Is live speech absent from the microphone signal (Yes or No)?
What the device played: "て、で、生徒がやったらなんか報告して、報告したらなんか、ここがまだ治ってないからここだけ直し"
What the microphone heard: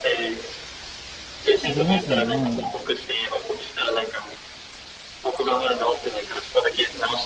No